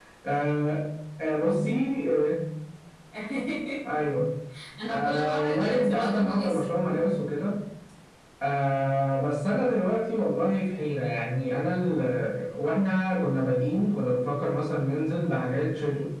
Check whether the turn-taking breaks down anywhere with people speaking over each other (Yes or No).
Yes